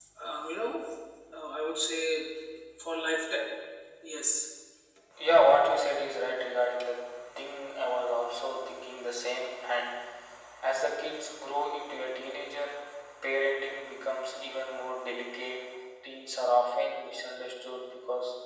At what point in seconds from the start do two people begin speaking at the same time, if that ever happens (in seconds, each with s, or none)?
none